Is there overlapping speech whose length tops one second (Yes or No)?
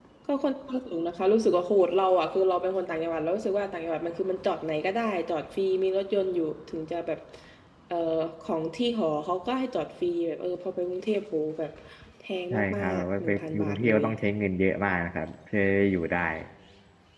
Yes